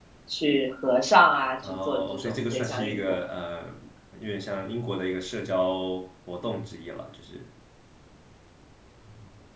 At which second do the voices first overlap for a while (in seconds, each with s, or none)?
1.6 s